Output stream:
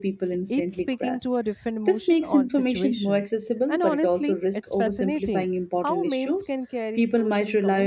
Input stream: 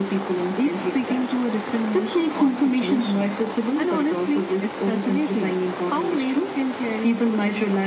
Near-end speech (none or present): none